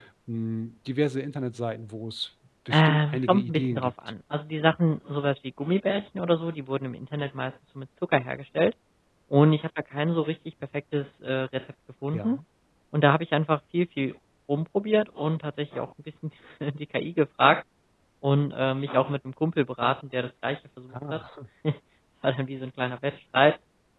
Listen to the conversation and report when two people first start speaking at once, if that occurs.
2.7 s

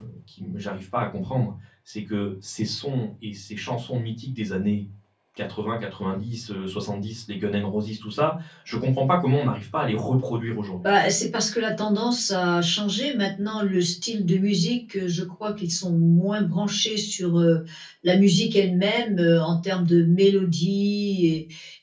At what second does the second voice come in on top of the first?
none

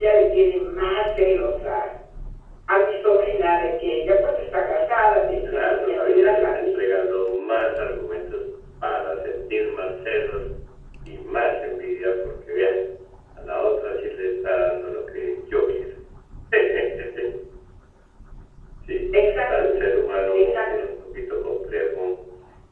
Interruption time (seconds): 5.4 s

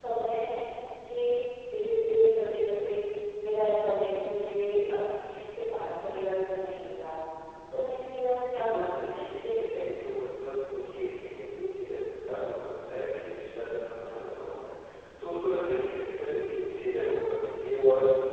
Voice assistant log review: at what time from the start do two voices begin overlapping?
8.5 s

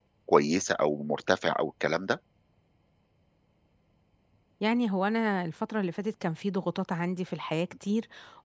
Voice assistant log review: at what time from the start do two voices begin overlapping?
none

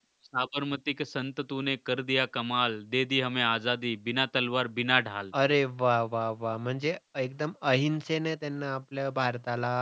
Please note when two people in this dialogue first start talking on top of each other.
none

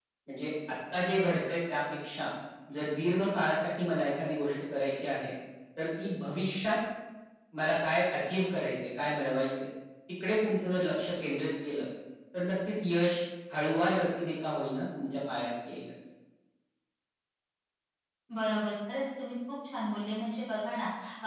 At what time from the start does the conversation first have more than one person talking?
none

